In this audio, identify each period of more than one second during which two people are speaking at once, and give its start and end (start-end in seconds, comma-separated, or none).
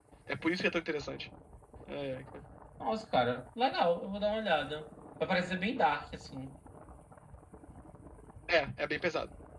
none